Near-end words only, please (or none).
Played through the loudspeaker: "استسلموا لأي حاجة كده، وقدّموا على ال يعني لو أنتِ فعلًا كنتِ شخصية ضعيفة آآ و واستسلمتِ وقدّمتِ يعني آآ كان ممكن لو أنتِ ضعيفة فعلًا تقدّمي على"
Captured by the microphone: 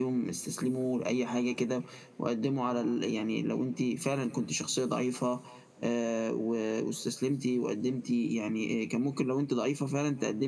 none